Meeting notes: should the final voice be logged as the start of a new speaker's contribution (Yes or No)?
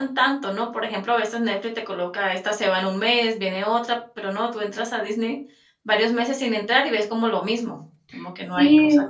Yes